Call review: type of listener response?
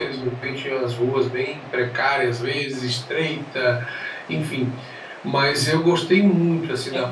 taking over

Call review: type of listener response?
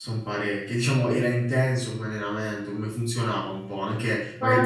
taking over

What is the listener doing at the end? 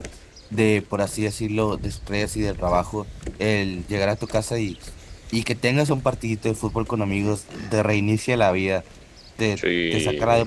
listening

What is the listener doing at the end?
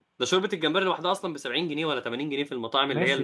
taking over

